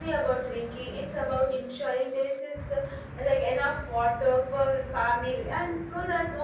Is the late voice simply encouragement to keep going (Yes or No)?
Yes